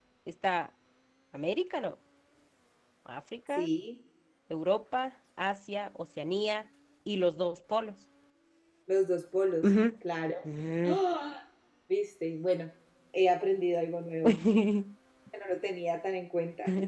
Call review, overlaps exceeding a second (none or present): none